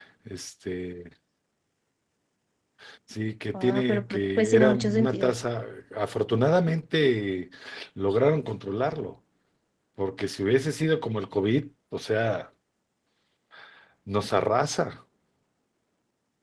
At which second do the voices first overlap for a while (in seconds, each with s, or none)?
3.5 s